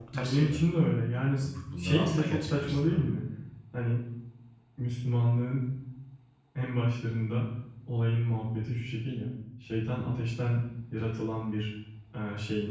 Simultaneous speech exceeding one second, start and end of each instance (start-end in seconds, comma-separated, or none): 1.8-3.0